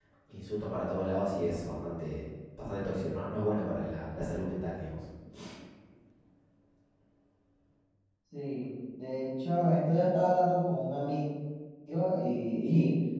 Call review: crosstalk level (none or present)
none